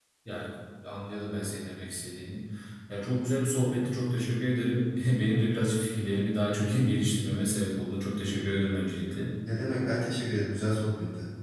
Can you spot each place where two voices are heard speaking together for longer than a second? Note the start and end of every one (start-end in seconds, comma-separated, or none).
none